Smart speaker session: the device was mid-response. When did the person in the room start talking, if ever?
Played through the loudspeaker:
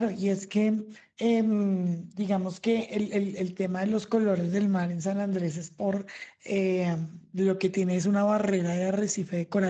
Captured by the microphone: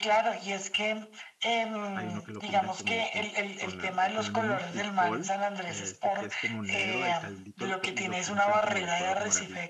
1.9 s

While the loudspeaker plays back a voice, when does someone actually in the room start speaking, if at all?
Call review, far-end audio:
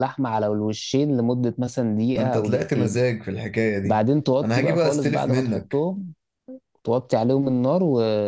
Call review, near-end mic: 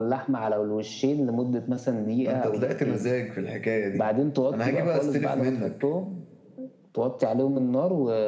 none

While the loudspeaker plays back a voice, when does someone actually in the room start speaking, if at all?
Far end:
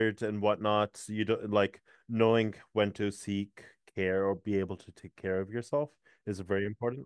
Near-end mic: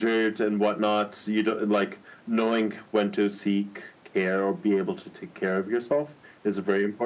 none

